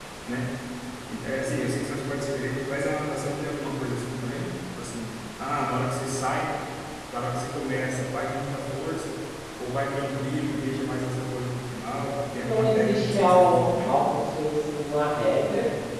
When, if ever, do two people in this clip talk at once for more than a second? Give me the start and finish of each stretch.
12.4-13.9

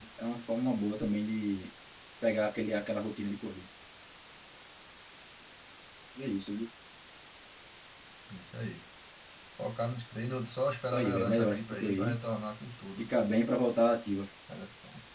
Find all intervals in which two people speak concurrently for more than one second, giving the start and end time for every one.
10.9-12.2

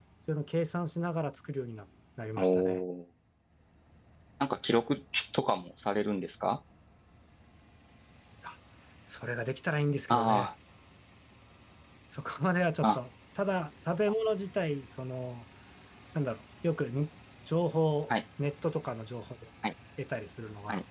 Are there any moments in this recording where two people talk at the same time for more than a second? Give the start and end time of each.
none

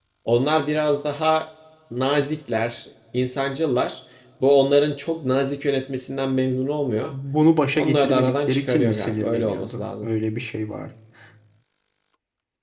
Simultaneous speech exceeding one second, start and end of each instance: 7.8-10.1

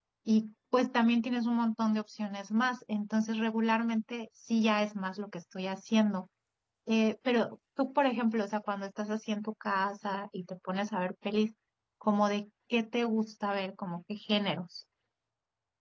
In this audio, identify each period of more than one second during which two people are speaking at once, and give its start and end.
none

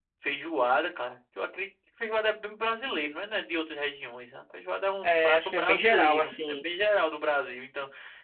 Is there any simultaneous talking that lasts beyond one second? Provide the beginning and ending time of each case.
5.0-6.6

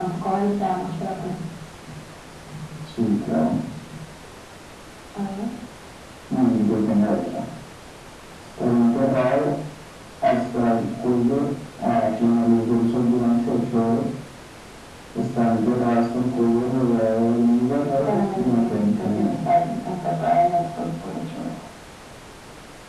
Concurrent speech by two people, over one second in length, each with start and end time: 17.9-19.6

